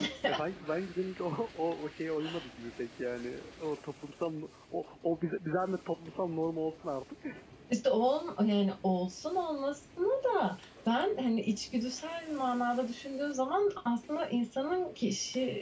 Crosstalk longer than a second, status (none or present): none